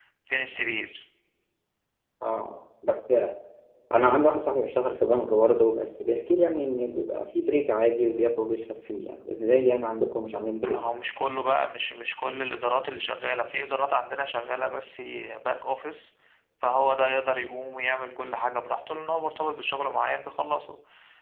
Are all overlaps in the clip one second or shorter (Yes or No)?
Yes